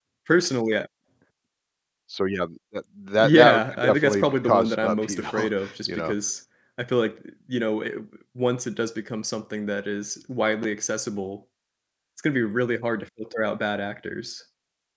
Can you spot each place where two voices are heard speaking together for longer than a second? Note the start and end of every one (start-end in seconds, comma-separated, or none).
3.2-6.1